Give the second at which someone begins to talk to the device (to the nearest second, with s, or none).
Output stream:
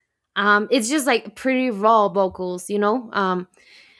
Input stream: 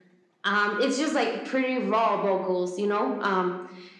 none